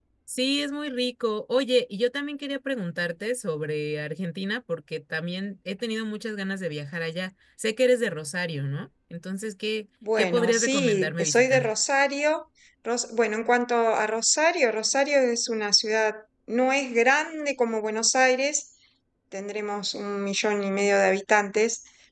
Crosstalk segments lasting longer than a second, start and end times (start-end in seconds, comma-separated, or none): 10.2-11.6